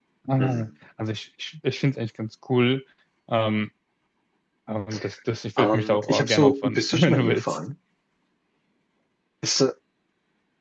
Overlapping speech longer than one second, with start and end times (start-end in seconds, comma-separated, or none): 5.6-7.6